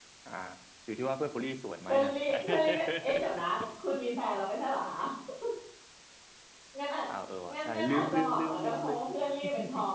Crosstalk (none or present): present